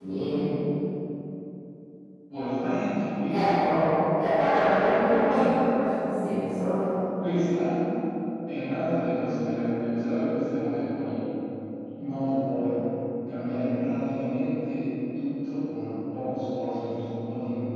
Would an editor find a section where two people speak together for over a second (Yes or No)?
No